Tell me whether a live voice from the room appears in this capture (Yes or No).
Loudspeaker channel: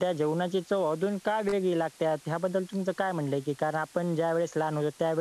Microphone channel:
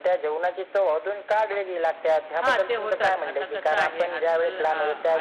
Yes